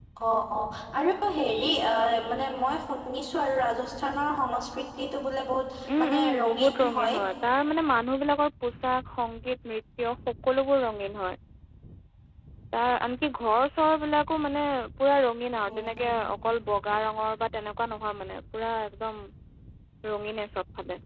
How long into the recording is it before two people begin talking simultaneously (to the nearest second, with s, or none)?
6 s